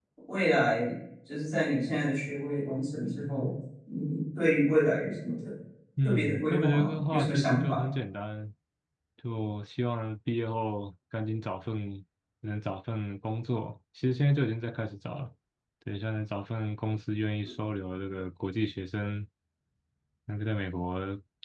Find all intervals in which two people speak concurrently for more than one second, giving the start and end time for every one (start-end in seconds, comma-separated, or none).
6.0-7.8